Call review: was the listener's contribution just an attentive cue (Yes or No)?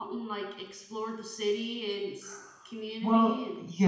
No